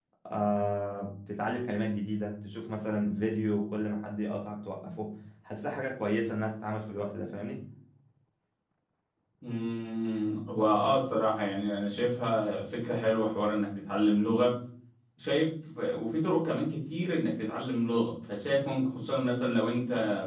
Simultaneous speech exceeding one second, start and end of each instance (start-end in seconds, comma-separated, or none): none